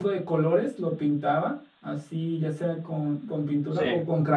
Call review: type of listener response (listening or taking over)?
listening